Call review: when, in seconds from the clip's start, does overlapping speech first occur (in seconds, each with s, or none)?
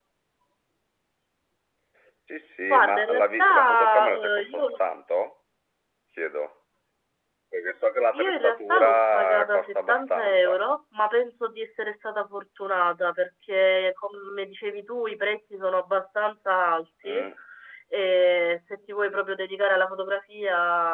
2.7 s